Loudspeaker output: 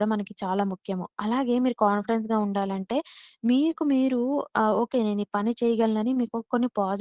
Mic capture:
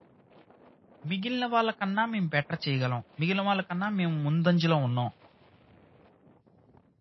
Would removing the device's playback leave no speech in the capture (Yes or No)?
No